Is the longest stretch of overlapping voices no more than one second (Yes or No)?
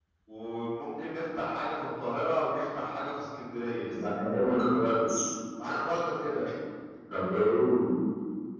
Yes